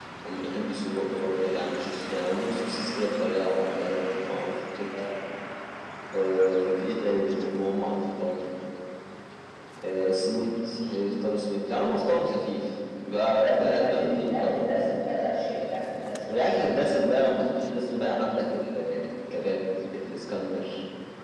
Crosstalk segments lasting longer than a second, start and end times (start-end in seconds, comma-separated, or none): 13.4-14.6